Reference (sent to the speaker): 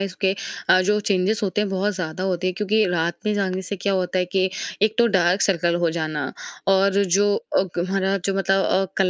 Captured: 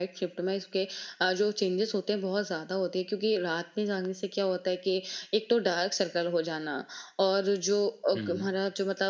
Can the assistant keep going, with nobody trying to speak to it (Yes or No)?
No